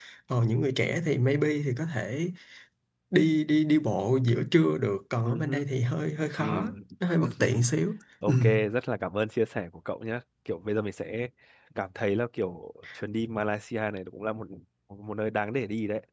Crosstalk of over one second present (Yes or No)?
No